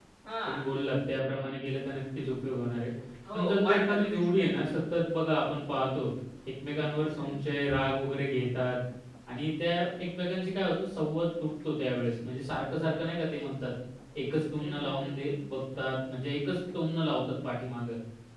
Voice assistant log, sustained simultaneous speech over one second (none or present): present